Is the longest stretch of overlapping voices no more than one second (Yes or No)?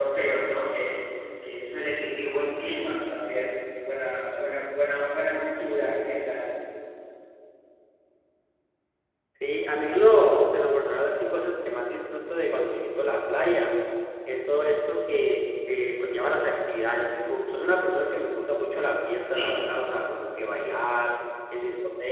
Yes